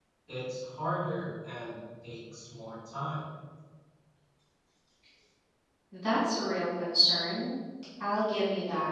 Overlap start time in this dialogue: none

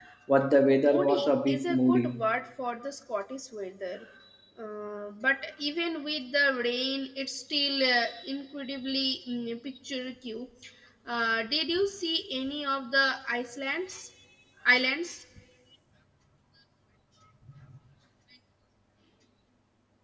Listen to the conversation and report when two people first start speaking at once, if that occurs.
1 s

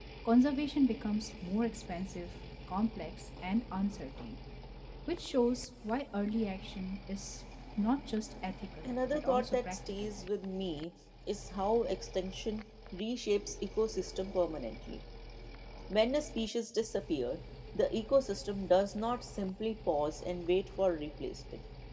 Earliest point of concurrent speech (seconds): 9 s

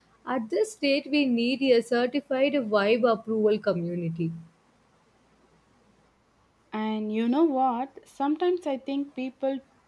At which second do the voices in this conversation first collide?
none

